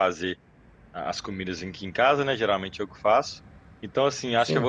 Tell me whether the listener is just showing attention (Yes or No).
Yes